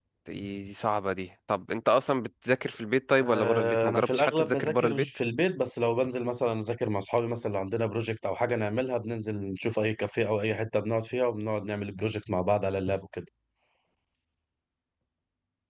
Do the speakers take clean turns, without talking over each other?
No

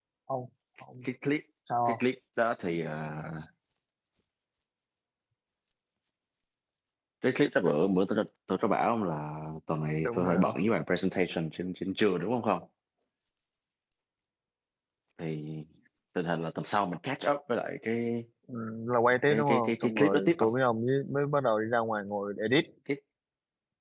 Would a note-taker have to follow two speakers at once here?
Yes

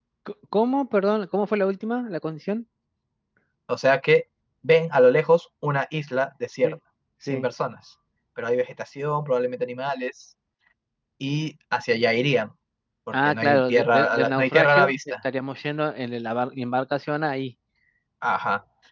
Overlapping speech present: Yes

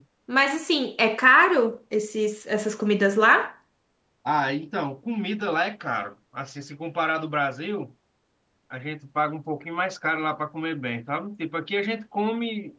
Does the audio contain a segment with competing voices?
No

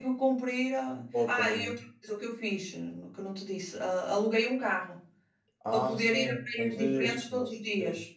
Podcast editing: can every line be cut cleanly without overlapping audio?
No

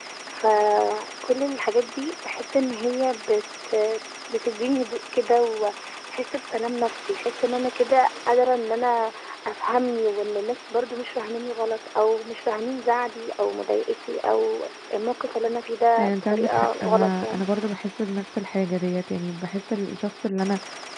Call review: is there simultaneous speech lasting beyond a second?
Yes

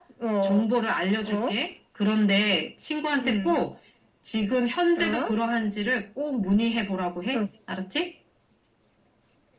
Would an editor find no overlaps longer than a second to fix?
Yes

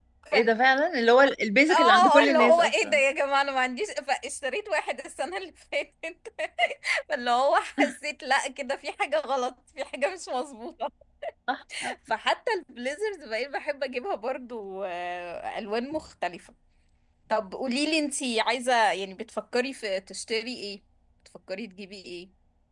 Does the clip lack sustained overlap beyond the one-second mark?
No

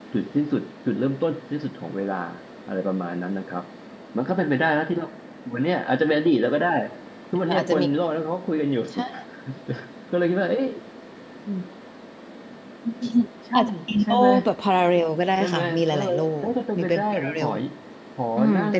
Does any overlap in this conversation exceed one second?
Yes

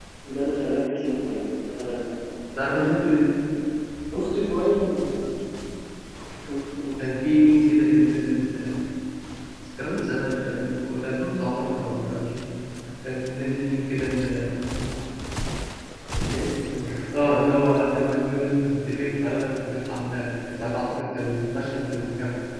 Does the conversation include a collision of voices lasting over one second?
No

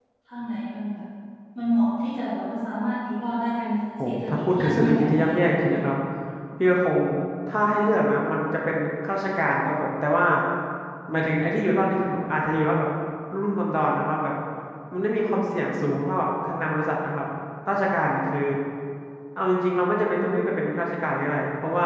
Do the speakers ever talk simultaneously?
Yes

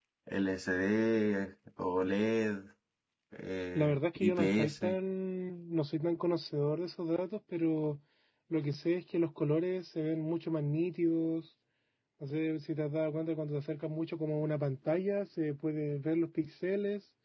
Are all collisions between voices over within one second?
No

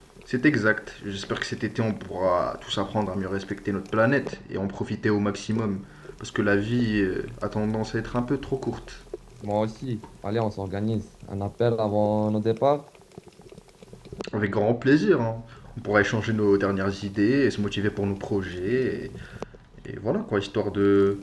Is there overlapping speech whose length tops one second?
No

